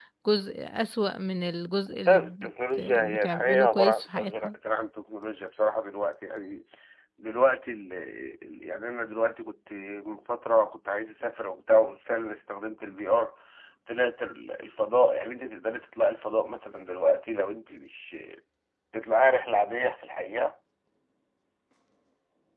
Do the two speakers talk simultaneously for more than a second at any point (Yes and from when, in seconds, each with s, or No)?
Yes, from 2.1 s